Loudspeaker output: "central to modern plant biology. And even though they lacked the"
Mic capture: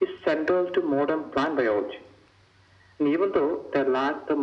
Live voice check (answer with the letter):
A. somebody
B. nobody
B